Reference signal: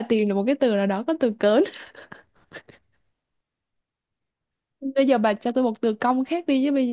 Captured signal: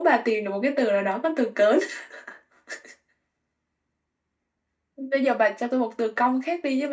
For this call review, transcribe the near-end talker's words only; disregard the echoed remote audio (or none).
none